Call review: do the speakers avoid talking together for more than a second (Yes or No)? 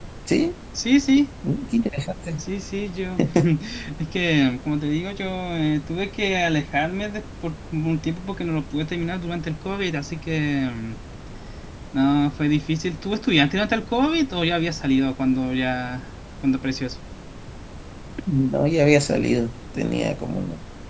Yes